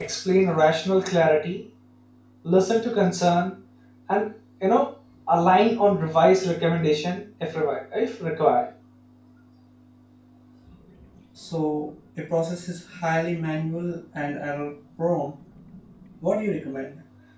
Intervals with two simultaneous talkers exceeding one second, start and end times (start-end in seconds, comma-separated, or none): none